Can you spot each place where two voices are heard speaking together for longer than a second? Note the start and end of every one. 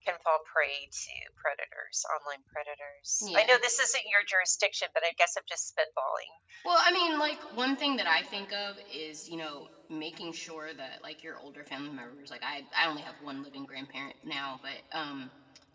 none

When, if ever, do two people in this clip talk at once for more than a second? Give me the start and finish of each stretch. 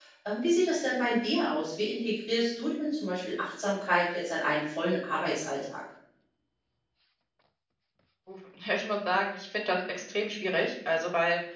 none

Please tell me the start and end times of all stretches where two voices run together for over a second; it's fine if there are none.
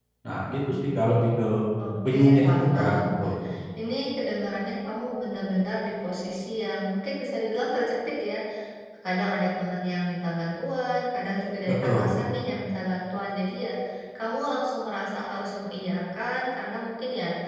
2.1-3.3

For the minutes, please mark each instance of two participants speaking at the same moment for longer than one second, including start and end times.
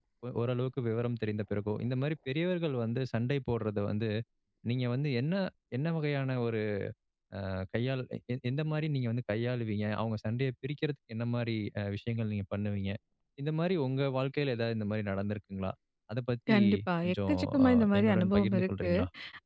17.0-18.9

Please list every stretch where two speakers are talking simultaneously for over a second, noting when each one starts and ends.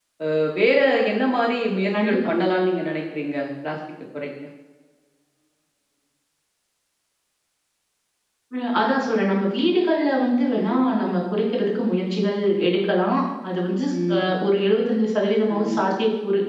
none

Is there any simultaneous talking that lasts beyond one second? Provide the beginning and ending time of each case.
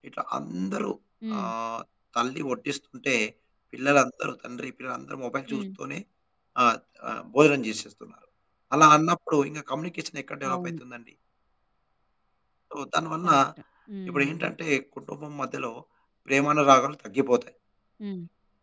none

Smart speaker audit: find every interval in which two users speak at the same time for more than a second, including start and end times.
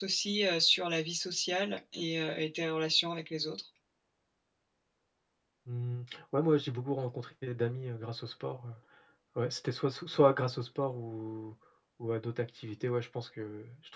none

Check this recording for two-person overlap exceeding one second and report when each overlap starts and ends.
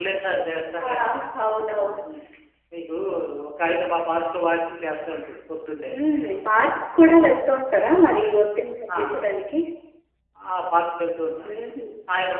none

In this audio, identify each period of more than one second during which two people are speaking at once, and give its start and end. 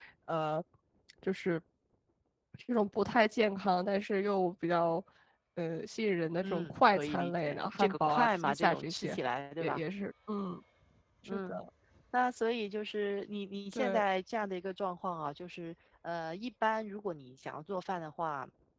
6.4-9.2

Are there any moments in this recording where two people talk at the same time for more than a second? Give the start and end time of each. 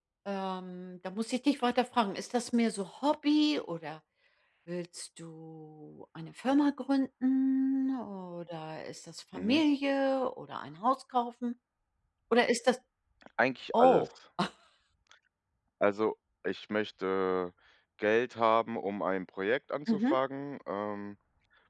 none

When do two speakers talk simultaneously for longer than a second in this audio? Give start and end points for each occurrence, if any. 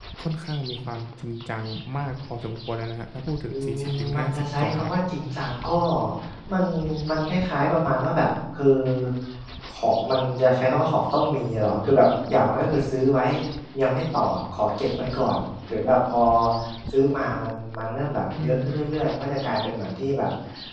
3.5-4.9

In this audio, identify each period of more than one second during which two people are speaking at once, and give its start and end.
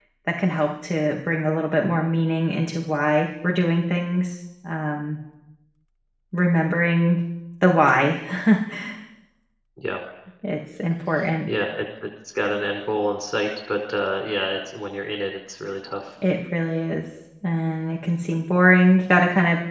none

